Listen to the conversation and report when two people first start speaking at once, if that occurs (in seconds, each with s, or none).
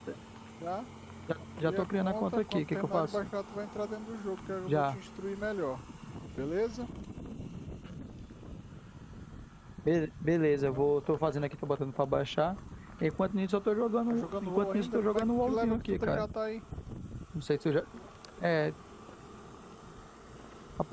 1.6 s